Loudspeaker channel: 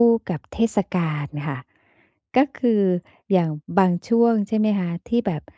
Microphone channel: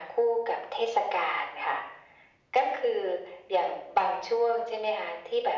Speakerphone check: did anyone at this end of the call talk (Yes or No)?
No